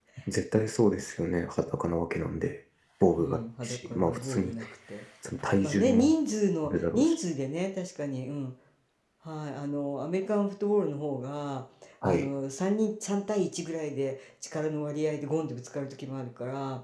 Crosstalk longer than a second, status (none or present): present